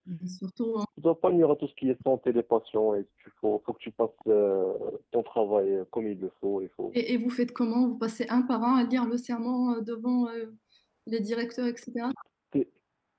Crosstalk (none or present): none